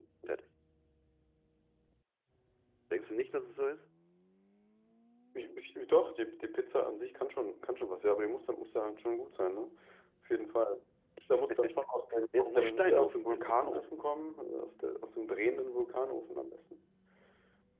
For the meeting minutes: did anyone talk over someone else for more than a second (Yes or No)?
Yes